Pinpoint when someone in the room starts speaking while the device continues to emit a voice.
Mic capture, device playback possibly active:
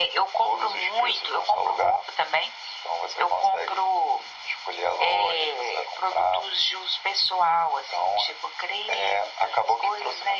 none

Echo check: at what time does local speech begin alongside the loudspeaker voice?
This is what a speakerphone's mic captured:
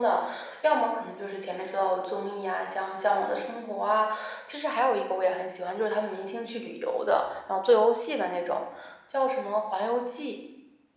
none

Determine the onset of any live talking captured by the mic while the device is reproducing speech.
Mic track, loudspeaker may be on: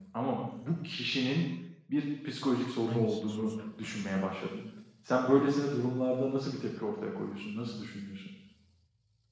2.8 s

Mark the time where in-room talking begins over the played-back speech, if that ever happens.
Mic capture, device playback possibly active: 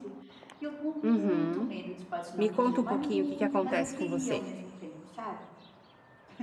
1.0 s

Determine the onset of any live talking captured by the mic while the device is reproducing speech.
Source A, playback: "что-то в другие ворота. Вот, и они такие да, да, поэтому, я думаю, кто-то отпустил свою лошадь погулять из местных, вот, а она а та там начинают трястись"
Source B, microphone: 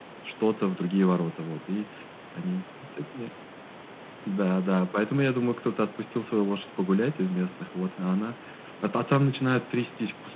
none

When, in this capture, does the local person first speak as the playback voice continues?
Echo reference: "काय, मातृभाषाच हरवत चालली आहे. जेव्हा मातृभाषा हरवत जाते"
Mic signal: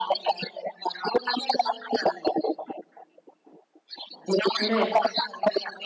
4.6 s

